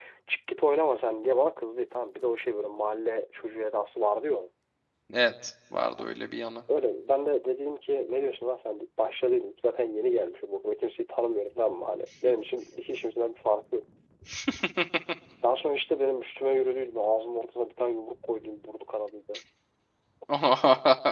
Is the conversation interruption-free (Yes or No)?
Yes